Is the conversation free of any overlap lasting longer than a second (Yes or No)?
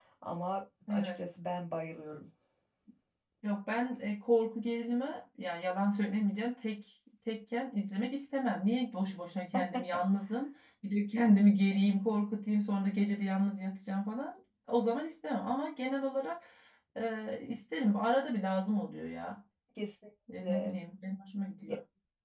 Yes